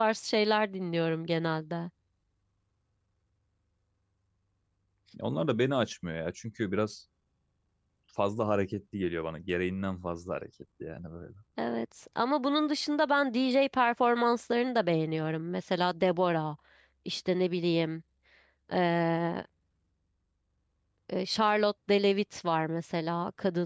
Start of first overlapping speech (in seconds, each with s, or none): none